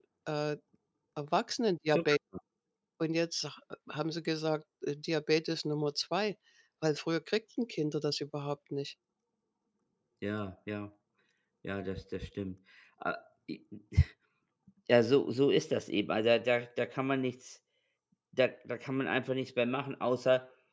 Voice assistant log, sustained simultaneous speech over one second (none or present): none